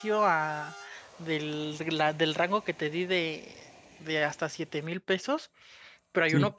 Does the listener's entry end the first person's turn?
No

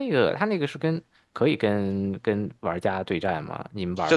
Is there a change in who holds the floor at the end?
Yes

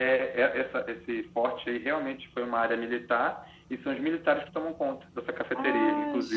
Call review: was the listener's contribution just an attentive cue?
No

